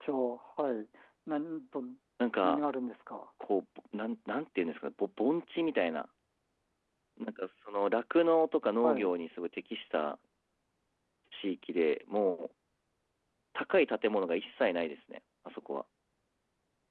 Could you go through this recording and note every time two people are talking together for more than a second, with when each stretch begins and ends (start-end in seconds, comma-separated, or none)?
none